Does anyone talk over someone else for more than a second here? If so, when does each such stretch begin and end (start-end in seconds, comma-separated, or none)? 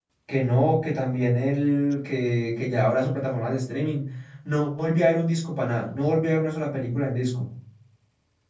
none